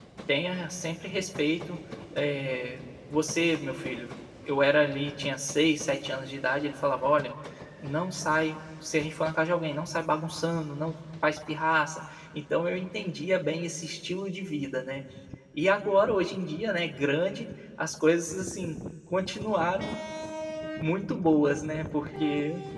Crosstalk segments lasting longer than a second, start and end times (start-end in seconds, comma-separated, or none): none